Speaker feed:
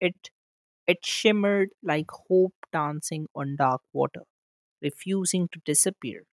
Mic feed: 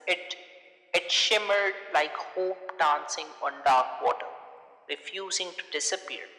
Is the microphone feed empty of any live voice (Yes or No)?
Yes